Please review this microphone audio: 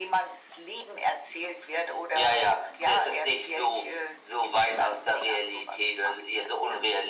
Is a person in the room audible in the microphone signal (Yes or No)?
No